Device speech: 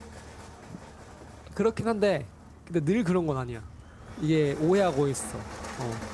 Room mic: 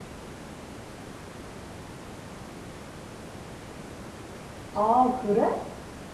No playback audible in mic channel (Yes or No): Yes